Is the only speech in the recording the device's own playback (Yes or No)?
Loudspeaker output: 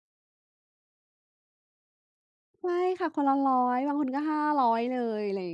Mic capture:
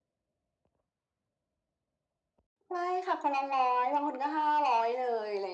Yes